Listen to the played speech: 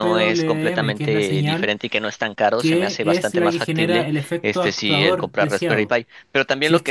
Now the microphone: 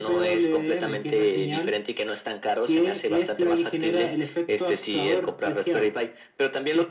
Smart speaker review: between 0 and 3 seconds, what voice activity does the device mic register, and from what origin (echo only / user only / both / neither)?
echo only